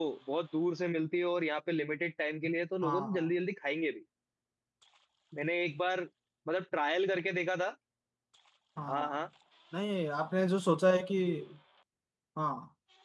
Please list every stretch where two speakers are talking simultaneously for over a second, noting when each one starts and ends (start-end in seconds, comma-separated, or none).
none